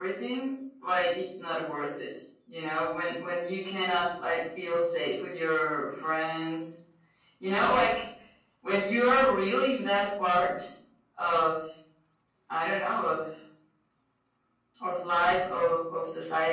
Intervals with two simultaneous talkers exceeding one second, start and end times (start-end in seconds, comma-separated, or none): none